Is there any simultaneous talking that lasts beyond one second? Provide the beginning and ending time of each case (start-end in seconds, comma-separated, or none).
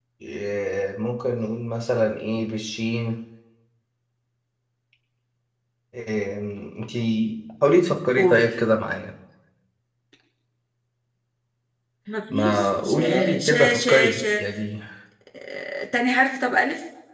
12.3-14.2